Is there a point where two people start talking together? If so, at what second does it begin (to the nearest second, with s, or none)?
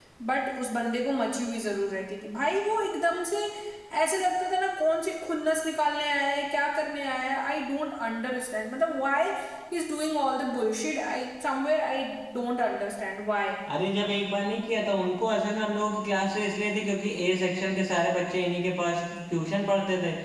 none